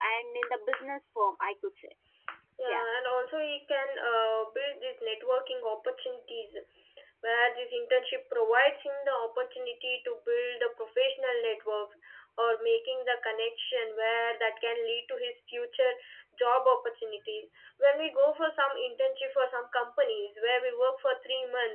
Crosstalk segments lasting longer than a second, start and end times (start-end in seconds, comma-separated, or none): none